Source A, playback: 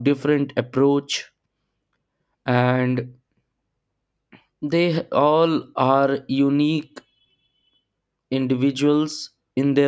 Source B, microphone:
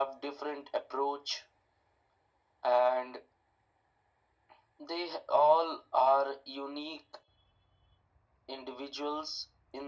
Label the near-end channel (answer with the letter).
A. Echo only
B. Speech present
A